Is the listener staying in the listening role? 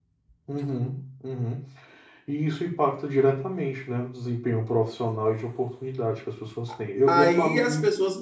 No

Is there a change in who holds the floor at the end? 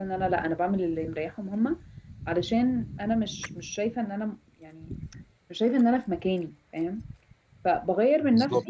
No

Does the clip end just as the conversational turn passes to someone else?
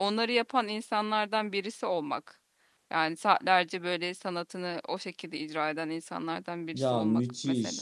Yes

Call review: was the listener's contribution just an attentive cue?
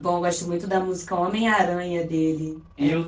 No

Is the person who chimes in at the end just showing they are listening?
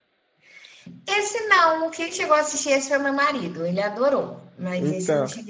No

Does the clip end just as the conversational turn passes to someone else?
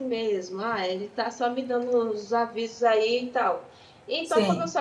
No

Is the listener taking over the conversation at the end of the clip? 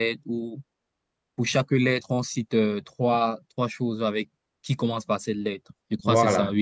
Yes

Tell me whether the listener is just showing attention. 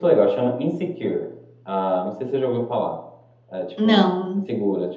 Yes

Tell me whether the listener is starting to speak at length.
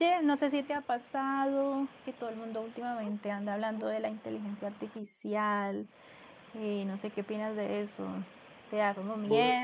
No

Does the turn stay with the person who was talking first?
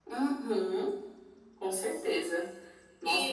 No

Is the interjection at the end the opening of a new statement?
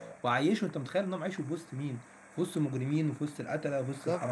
Yes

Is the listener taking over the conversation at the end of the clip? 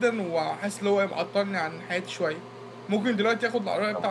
No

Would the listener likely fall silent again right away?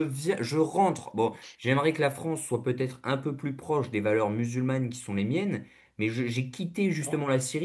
Yes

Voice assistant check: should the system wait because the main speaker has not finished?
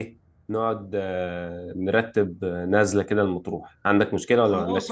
No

